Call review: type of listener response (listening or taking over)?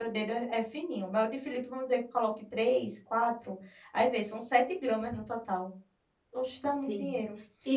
taking over